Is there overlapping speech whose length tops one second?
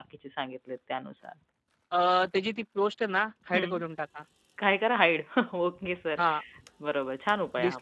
No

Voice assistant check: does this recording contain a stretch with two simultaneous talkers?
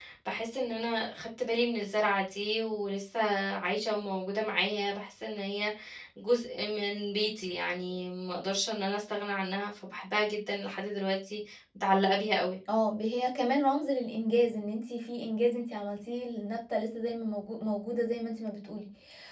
No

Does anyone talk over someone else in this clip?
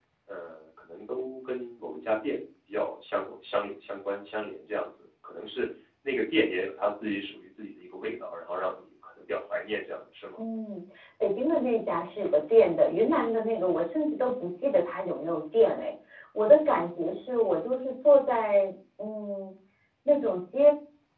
No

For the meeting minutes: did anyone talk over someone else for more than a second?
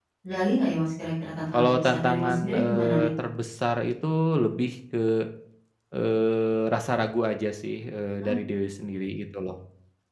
Yes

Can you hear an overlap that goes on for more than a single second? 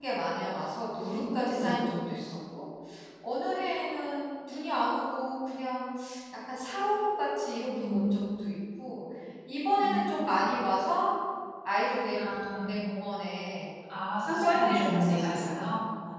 Yes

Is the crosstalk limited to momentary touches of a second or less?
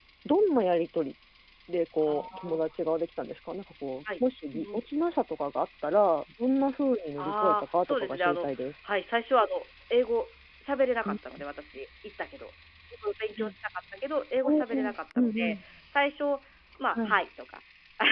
No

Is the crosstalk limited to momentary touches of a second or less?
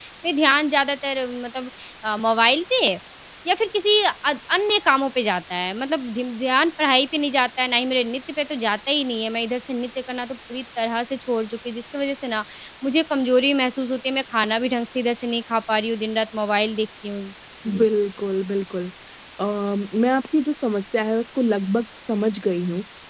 Yes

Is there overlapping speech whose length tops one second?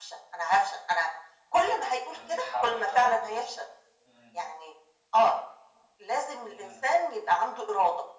Yes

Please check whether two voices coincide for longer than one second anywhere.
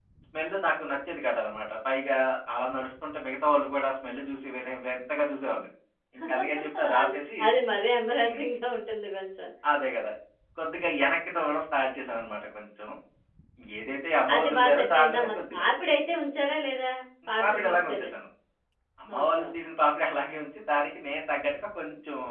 Yes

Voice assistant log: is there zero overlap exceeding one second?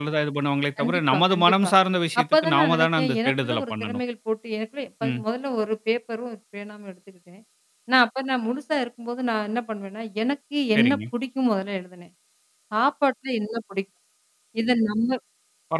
No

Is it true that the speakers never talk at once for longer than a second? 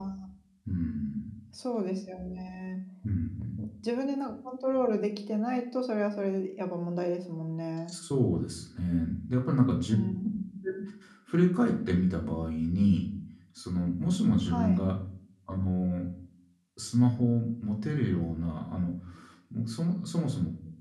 Yes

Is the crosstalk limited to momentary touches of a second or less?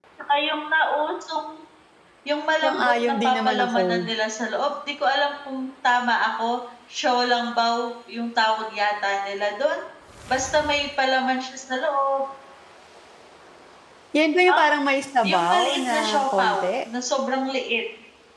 No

